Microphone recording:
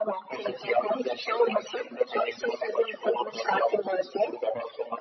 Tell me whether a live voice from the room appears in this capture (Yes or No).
No